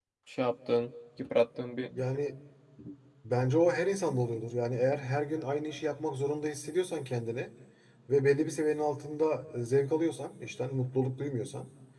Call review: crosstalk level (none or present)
none